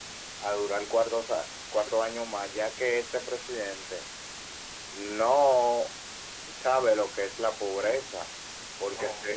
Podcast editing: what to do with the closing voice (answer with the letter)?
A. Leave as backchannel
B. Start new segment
A